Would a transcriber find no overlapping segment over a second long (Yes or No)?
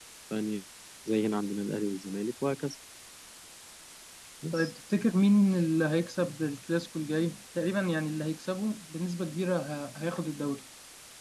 Yes